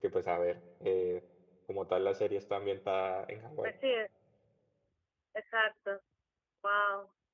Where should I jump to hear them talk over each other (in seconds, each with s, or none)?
none